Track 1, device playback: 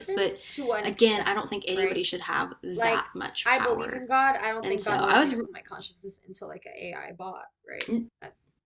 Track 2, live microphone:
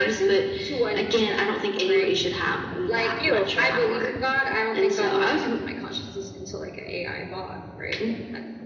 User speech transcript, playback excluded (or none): Beautiful.